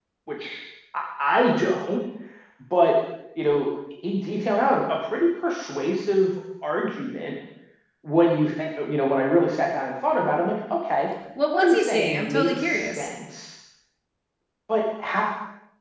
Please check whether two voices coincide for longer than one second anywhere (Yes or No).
Yes